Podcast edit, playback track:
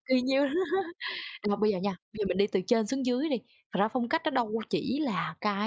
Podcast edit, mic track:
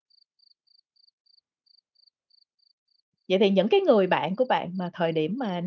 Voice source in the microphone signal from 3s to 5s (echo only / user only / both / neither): user only